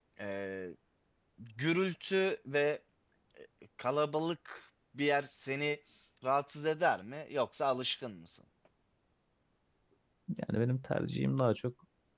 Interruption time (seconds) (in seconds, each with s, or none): none